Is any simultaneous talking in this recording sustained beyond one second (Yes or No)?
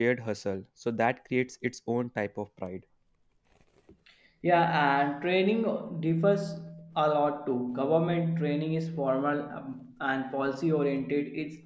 No